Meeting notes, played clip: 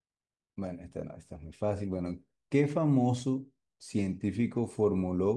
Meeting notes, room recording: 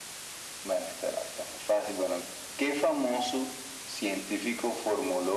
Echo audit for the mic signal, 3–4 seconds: echo only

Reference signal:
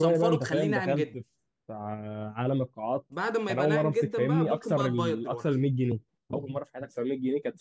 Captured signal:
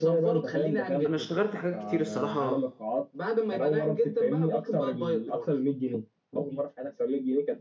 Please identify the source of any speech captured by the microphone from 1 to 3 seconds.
both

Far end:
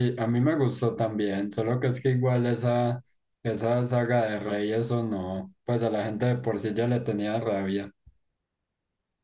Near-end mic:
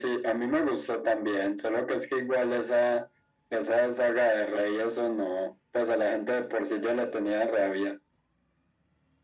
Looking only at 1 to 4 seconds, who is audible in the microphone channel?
echo only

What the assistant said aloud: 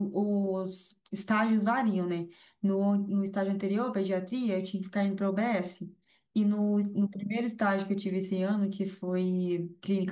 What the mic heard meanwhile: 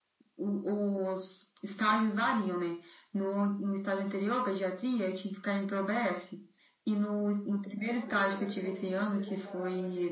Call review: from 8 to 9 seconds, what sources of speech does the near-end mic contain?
both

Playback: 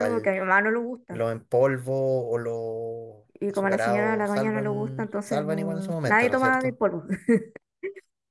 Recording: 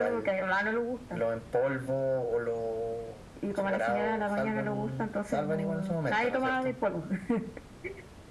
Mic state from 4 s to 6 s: echo only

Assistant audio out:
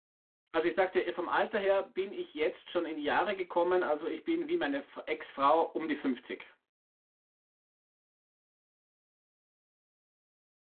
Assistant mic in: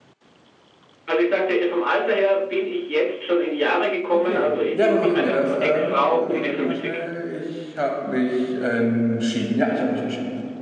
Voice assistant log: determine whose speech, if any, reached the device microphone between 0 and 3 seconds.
echo only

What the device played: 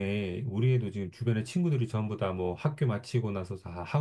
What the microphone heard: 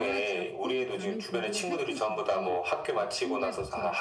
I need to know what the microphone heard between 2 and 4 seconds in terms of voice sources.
both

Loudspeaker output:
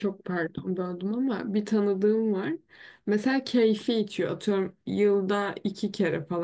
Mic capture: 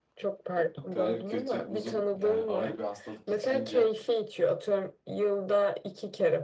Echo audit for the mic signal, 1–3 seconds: both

